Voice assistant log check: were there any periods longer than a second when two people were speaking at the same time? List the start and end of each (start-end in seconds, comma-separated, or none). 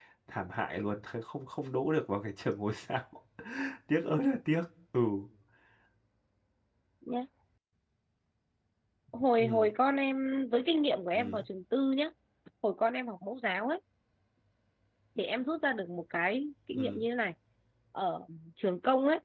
none